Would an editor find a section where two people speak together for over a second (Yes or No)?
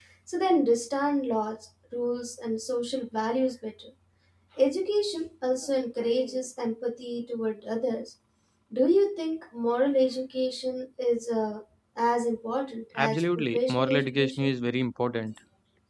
Yes